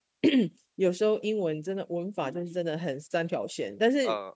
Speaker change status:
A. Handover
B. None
B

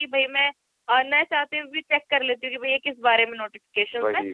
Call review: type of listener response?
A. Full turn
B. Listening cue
B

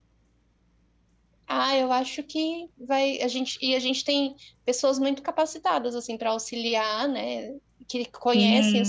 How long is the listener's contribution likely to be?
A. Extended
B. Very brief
A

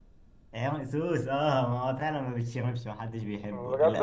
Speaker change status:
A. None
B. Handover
B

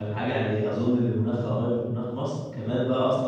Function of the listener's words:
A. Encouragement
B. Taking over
A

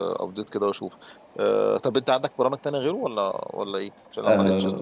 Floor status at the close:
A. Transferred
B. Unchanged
A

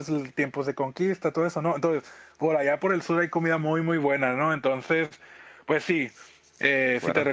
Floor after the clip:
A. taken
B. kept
B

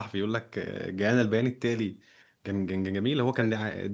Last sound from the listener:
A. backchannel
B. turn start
A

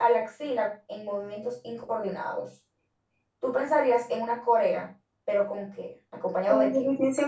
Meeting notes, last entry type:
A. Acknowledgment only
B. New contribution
B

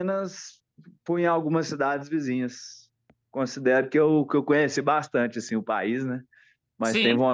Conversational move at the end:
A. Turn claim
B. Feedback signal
B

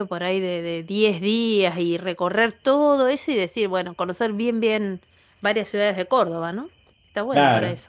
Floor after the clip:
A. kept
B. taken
B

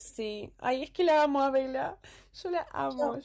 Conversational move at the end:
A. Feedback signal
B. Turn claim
B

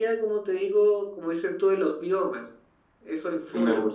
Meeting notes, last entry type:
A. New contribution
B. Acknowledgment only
A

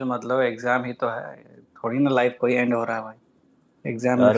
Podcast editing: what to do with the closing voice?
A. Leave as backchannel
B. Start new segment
A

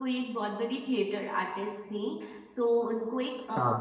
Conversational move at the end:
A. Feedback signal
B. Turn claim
A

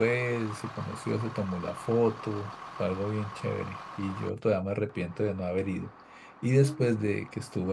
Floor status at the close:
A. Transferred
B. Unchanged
B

